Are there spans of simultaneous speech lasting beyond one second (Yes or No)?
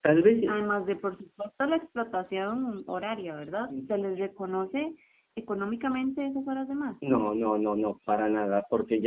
No